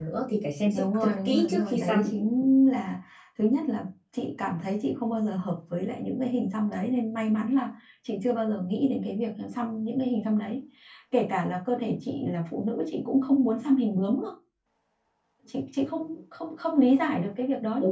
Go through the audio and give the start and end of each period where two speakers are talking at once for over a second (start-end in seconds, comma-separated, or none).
0.7-2.0